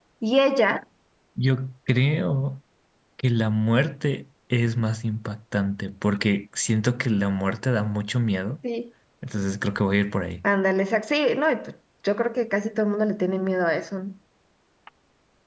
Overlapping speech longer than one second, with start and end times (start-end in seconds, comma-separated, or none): none